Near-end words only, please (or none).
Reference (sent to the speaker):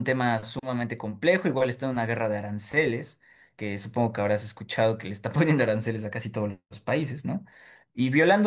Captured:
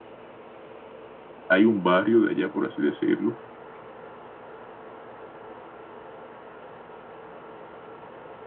hay un barrio de allá, por así decirlo,